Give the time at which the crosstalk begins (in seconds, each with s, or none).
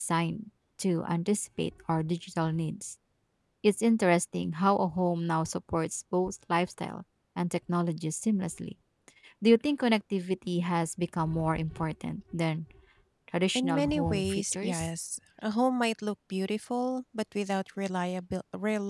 13.6 s